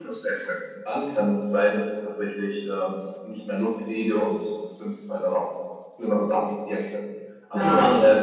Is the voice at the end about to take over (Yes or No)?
No